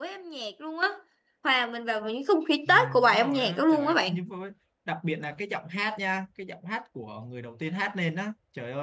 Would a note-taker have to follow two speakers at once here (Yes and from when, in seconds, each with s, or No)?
Yes, from 2.7 s